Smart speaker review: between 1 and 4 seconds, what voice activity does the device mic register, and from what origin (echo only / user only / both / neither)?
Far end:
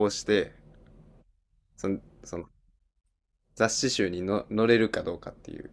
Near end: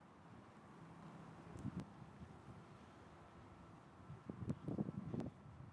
neither